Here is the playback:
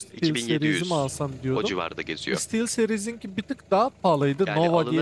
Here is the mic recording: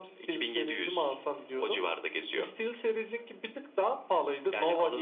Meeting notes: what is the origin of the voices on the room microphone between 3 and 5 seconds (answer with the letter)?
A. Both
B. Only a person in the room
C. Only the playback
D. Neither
C